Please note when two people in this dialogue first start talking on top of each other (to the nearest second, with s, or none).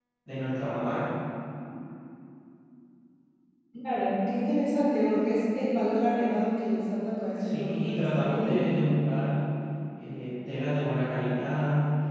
7 s